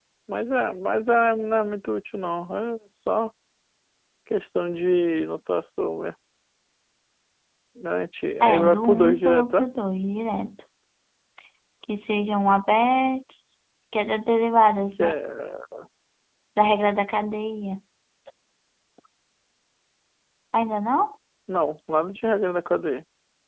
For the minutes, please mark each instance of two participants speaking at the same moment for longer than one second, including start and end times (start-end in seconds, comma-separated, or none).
8.4-9.6